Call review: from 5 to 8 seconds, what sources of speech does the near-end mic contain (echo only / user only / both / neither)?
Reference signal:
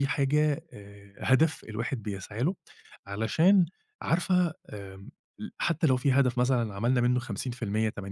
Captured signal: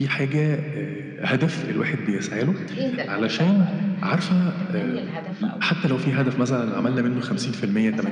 both